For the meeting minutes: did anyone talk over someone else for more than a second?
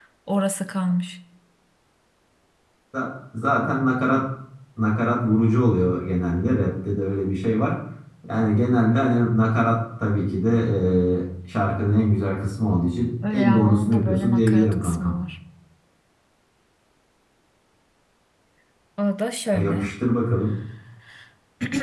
Yes, from 13.2 s

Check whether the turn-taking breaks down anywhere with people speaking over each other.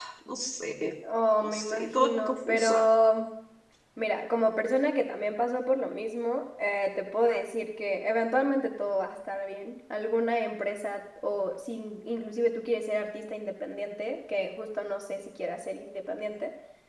Yes, from 1.4 s

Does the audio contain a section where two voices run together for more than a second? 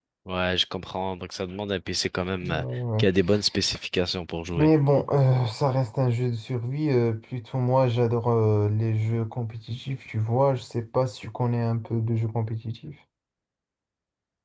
No

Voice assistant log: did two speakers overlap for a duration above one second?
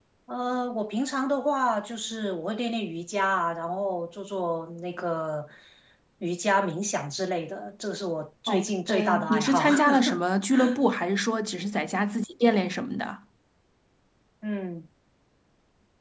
Yes, from 8.5 s

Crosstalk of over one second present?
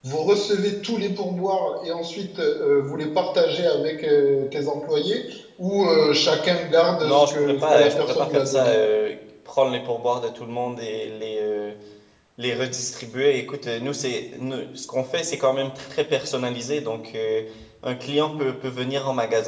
Yes, from 7.0 s

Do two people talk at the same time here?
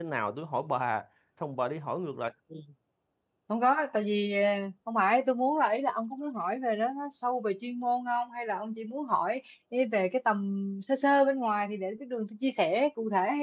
No

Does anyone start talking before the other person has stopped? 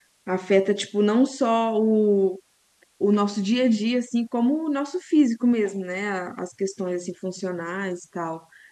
No

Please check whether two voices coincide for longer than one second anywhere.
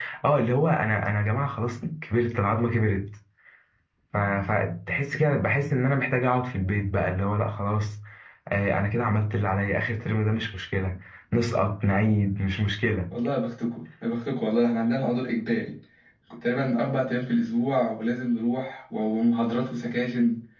No

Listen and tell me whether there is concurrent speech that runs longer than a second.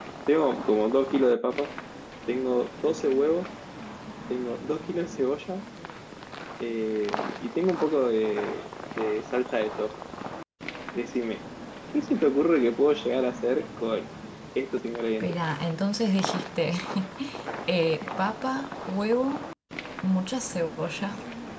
No

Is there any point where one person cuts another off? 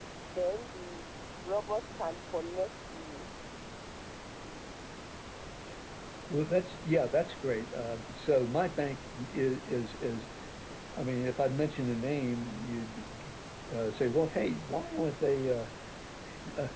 No

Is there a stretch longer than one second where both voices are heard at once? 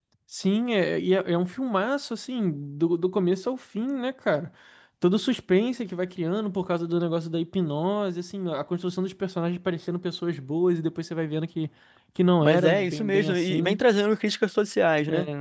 Yes, from 12.4 s

